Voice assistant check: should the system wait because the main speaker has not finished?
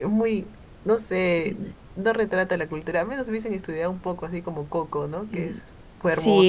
No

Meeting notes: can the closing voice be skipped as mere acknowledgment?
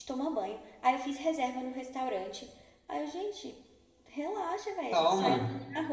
Yes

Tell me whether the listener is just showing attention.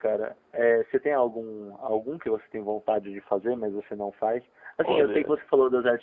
Yes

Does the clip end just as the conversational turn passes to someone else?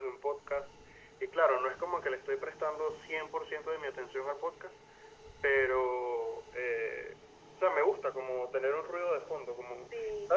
No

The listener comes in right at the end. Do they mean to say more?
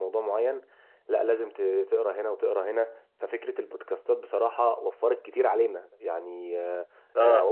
No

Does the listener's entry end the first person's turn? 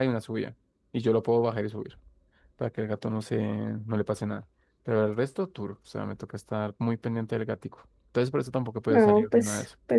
Yes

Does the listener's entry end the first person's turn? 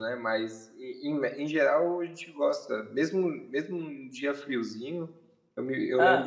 No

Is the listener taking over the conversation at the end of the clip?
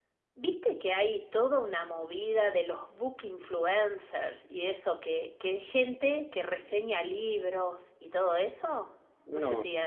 No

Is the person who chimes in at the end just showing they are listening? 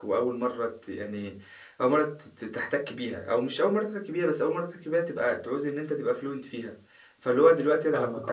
Yes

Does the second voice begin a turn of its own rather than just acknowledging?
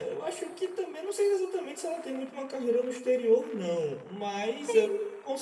No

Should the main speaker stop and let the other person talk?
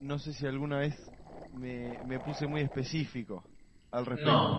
Yes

